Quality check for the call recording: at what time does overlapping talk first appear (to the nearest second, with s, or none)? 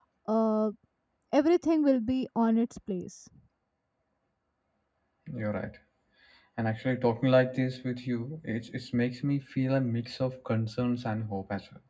none